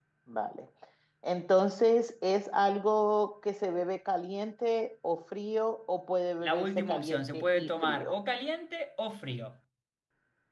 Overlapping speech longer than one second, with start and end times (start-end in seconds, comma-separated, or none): 6.4-8.2